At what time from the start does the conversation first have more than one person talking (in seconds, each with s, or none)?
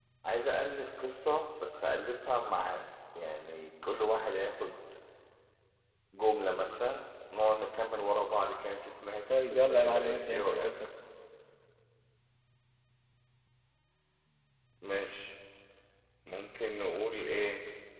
9.3 s